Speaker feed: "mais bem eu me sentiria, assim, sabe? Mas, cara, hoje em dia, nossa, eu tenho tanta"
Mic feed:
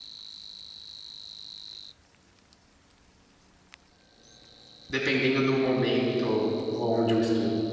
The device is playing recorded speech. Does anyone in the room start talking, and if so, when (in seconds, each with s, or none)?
4.9 s